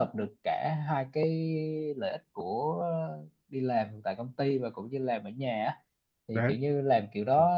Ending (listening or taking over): listening